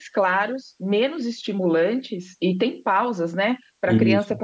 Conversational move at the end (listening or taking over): listening